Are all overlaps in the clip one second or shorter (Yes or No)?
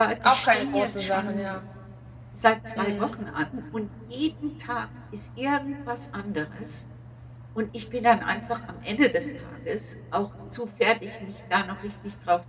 No